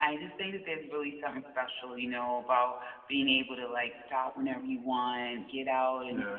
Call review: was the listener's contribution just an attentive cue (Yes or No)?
Yes